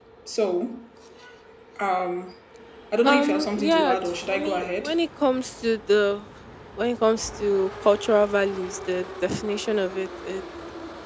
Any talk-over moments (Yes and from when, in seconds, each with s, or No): Yes, from 3.0 s